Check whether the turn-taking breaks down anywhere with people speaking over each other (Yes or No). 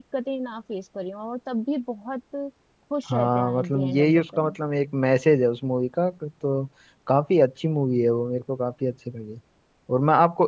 Yes